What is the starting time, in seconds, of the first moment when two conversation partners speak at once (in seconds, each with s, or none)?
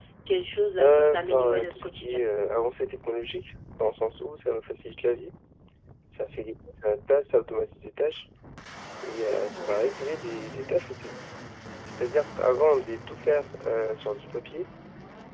0.8 s